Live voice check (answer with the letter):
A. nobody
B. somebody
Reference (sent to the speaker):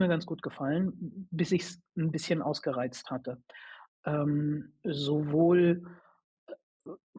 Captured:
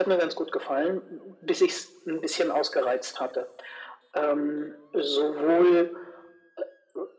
A